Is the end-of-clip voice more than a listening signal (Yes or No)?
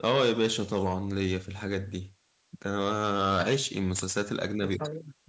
No